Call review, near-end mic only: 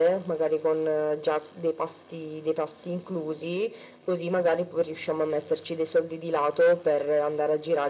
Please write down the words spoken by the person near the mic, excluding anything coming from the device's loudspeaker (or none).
none